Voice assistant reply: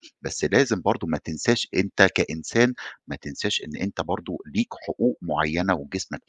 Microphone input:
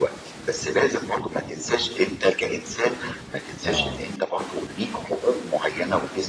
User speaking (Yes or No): Yes